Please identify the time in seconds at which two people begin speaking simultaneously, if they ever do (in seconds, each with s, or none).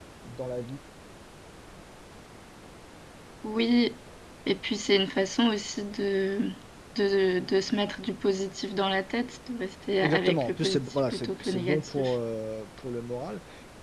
10.0 s